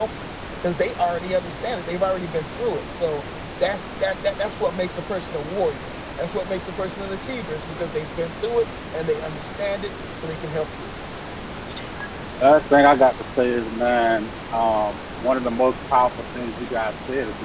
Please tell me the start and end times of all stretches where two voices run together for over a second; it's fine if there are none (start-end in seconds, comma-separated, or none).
none